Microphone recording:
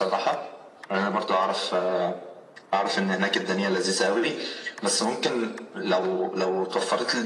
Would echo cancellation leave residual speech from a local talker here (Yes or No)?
No